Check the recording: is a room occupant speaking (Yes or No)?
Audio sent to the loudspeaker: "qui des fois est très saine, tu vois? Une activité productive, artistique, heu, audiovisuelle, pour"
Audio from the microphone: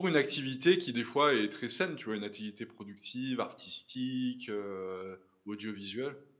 No